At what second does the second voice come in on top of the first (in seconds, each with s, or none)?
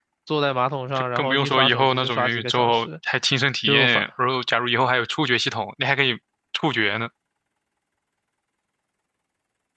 0.9 s